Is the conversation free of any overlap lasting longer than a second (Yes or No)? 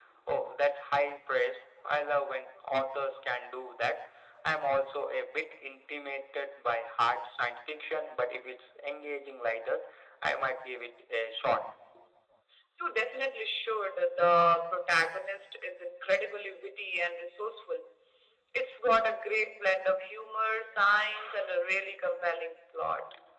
Yes